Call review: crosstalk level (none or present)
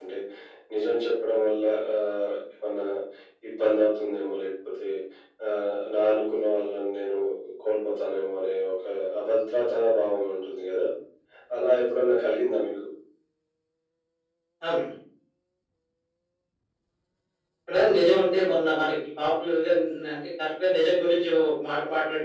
none